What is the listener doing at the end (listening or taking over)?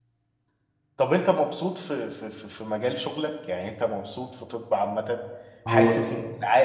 listening